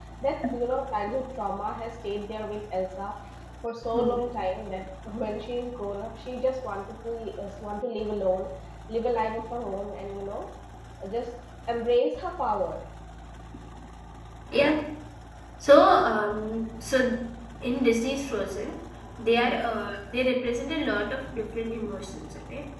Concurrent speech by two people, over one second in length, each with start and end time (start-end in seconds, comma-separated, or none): none